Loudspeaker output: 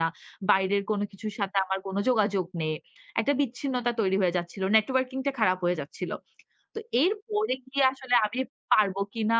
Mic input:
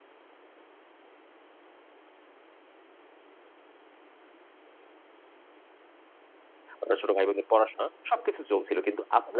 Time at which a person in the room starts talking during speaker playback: 6.8 s

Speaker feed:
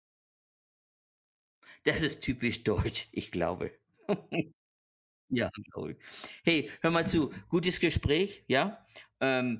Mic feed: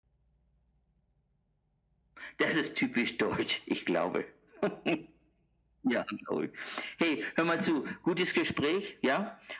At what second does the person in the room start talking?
none

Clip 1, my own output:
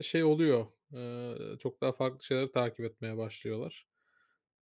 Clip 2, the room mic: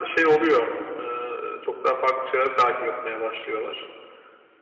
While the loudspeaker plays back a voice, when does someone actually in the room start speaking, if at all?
none

